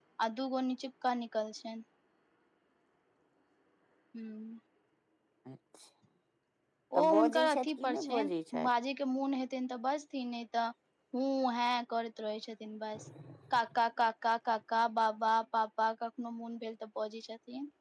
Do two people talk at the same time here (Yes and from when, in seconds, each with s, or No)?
Yes, from 7.0 s